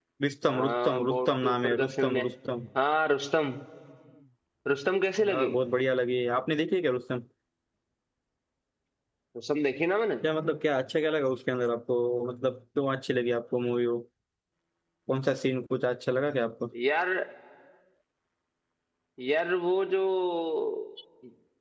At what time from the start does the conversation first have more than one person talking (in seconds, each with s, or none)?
0.5 s